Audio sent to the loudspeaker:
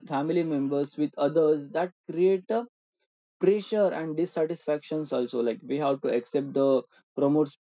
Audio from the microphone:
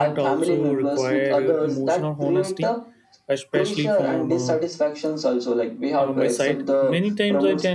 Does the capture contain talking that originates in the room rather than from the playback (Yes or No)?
Yes